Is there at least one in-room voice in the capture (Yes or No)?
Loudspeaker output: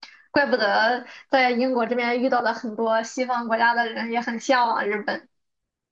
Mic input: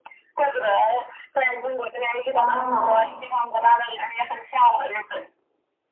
Yes